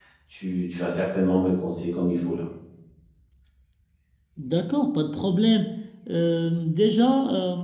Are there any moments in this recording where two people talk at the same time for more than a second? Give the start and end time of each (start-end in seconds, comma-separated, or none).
none